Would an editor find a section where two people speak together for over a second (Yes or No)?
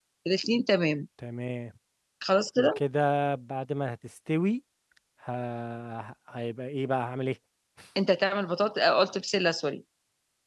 No